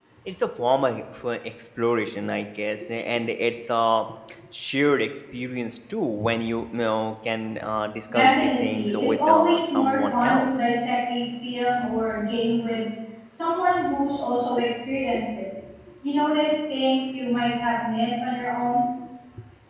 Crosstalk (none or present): present